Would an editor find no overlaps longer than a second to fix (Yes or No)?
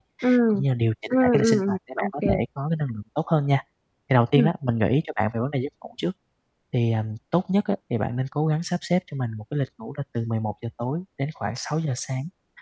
No